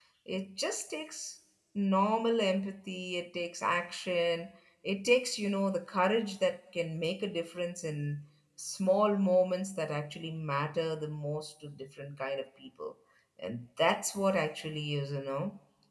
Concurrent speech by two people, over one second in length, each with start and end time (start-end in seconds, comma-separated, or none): none